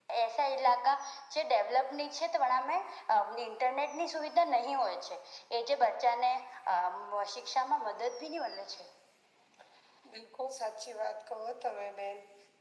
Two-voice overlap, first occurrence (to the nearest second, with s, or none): none